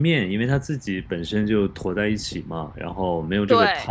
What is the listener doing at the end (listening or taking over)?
listening